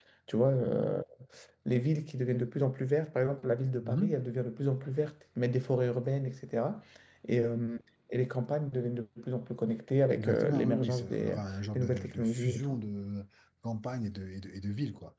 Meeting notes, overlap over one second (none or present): present